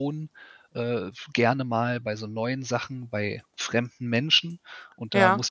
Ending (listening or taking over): listening